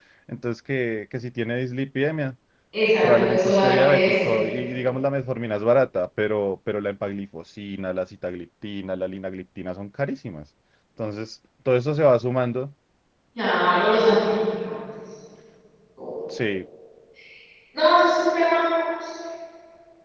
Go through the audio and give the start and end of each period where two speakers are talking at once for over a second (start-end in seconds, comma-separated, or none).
3.0-4.3